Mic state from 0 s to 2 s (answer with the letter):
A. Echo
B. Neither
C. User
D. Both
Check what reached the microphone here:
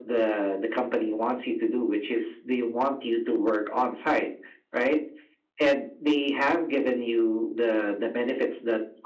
A